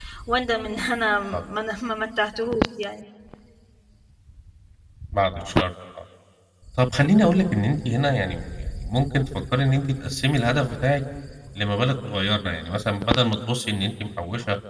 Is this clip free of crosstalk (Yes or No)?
Yes